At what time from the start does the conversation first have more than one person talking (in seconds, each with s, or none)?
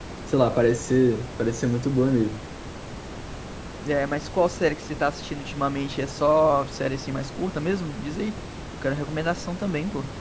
none